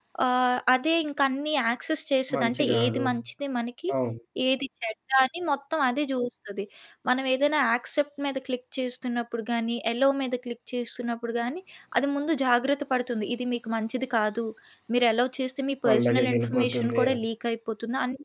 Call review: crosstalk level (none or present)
present